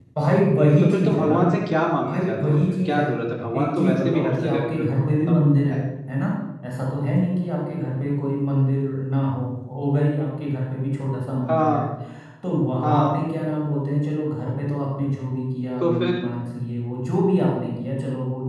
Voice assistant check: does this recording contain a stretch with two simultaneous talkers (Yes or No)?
Yes